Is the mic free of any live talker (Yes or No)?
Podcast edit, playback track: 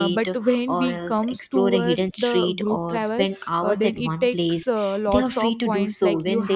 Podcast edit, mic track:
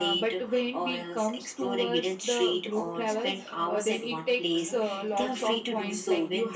No